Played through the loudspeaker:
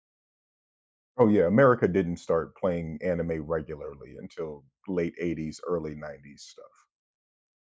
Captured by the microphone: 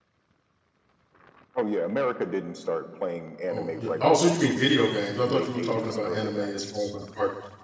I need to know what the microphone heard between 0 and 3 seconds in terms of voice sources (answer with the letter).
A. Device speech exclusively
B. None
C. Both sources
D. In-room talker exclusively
A